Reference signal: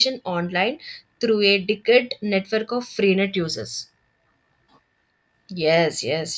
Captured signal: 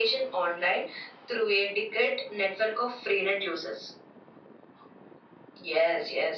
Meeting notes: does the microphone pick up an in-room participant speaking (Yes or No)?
No